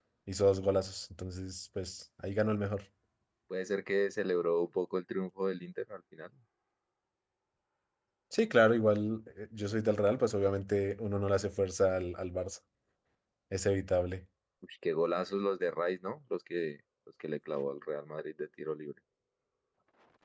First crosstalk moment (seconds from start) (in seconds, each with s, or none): none